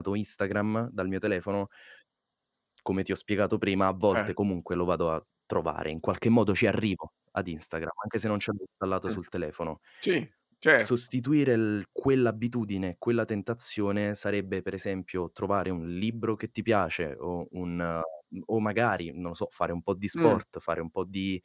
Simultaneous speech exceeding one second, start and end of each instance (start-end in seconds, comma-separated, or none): none